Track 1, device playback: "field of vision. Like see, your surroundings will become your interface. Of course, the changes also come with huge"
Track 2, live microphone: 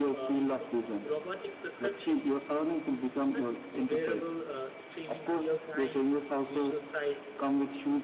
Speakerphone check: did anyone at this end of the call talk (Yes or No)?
Yes